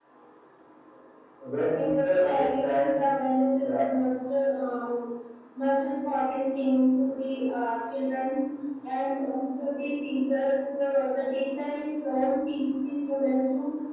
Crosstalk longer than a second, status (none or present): present